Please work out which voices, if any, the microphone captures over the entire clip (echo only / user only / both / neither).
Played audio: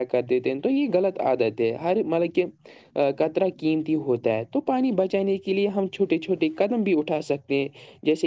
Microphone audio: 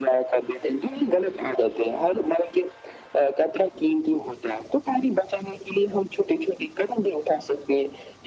echo only